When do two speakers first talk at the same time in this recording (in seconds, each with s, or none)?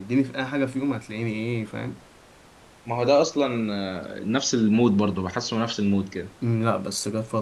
none